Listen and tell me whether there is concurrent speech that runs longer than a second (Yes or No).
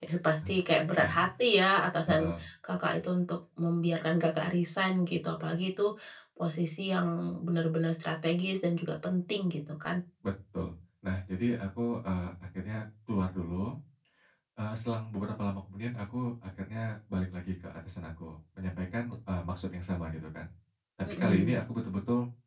No